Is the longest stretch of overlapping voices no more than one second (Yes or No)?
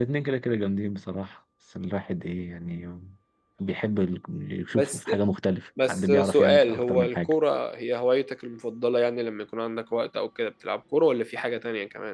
No